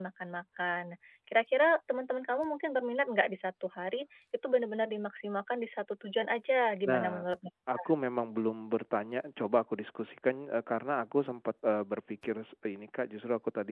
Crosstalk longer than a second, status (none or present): none